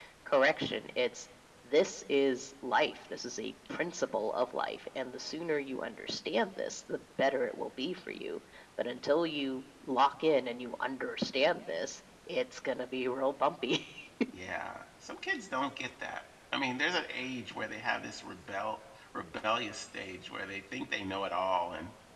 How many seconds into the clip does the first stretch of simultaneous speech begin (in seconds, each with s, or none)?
none